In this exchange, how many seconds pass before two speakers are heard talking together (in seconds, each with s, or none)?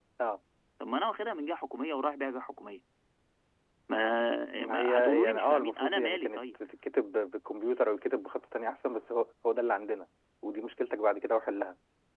4.6 s